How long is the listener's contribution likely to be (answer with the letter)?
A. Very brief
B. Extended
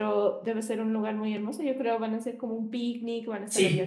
B